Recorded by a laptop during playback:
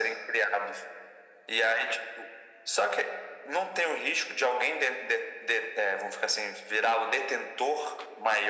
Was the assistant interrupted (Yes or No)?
No